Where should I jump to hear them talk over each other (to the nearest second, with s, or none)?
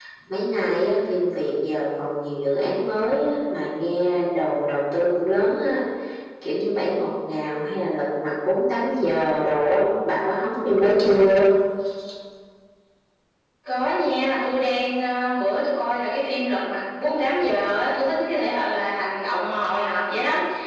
none